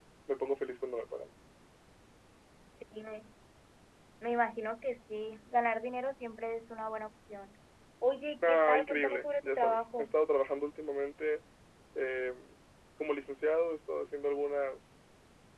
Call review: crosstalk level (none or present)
present